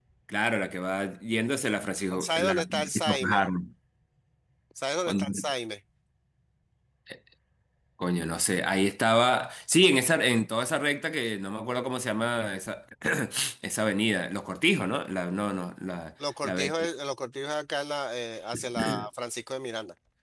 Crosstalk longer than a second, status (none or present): present